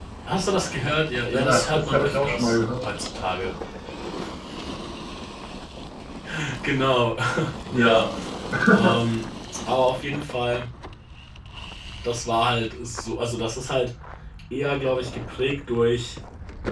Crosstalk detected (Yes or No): Yes